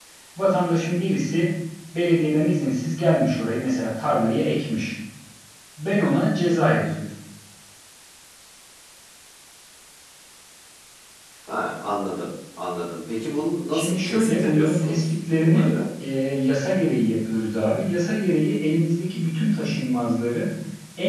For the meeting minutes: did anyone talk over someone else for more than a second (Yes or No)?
Yes